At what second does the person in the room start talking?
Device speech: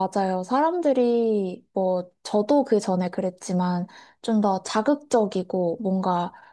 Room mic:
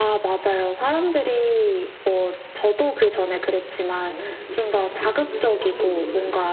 4.0 s

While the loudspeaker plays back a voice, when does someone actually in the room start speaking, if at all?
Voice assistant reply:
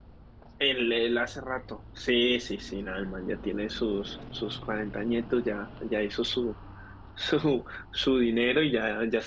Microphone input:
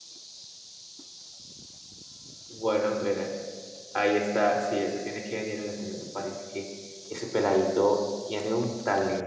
2.5 s

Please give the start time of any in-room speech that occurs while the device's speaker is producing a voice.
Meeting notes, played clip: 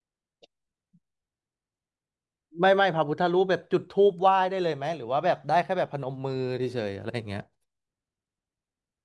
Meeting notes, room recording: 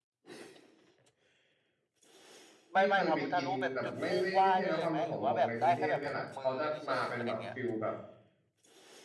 2.7 s

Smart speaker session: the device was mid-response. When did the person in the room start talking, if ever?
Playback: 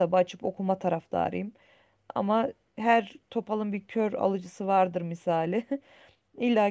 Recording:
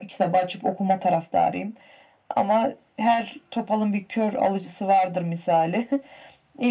none

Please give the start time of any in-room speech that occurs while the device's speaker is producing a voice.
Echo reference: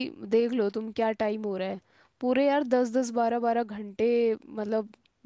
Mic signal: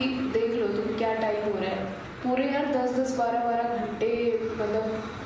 none

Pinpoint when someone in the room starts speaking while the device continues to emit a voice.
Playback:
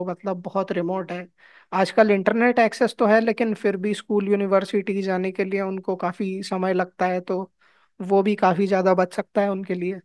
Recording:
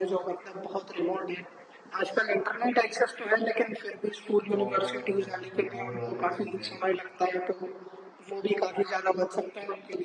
4.5 s

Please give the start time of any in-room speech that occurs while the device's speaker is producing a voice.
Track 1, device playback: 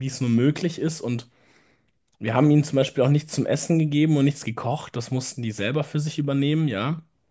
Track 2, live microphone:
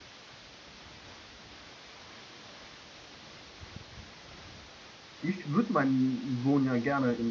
5.2 s

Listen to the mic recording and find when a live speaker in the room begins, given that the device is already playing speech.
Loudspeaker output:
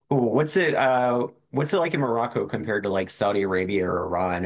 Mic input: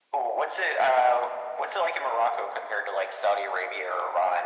none

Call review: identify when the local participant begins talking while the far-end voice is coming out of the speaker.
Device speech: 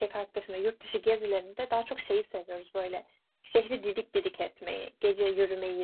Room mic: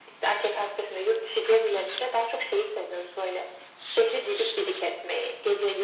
none

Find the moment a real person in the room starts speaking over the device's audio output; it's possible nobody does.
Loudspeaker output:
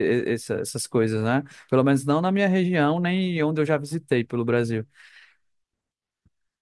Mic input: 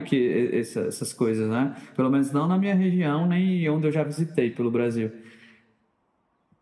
none

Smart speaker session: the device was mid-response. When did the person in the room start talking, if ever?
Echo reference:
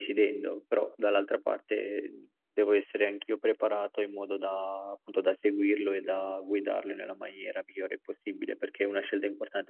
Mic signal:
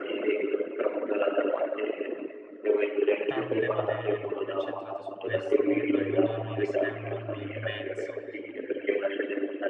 3.2 s

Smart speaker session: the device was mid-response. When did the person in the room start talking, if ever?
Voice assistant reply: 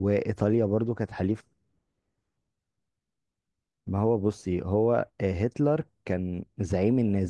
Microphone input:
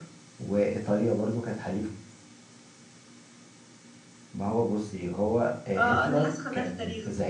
5.8 s

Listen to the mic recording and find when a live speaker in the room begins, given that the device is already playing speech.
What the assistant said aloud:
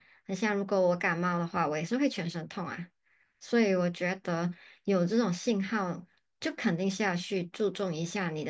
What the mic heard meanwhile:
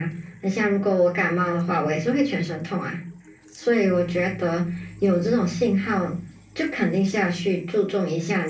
none

